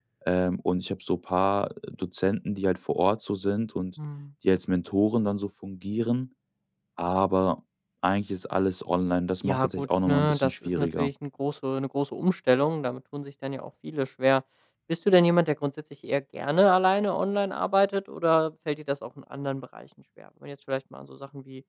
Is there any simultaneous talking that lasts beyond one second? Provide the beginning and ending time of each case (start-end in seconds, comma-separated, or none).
9.4-11.1